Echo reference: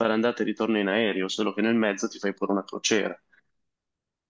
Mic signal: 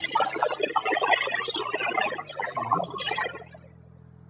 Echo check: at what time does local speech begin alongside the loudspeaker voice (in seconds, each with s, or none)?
2.4 s